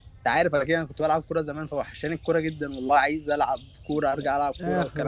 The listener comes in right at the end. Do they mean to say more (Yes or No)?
Yes